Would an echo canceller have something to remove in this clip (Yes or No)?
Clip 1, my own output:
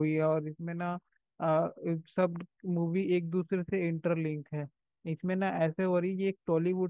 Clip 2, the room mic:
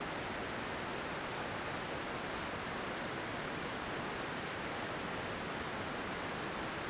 No